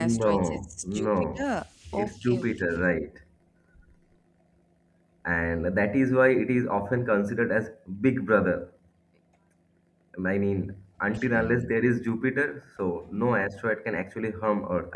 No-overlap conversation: No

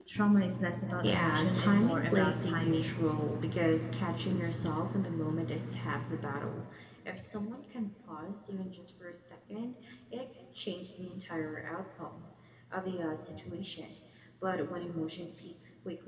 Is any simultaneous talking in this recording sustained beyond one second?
Yes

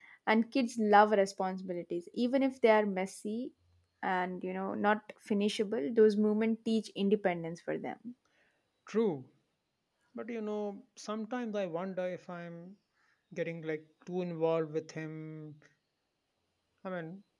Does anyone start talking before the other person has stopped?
No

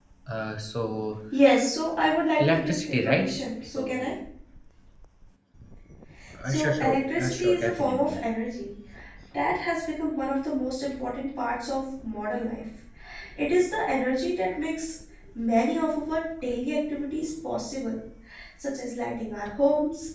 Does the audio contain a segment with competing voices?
Yes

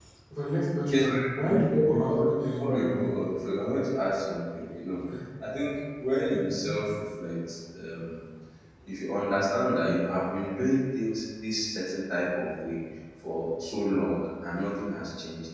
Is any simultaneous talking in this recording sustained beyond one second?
Yes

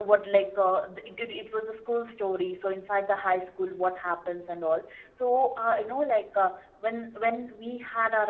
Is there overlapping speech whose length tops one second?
No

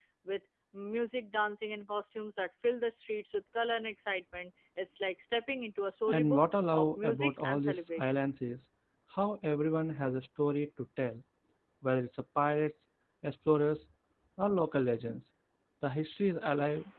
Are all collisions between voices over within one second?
No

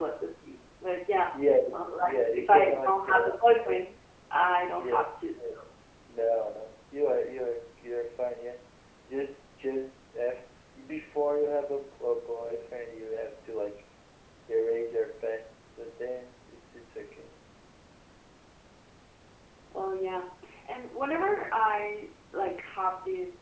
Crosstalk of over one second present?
Yes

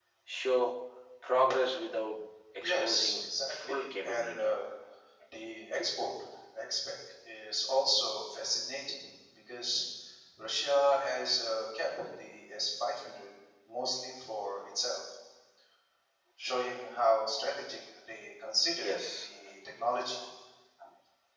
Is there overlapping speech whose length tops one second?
Yes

